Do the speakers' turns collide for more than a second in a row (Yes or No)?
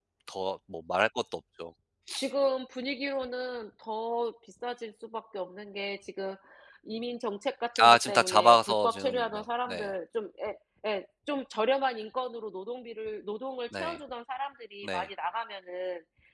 Yes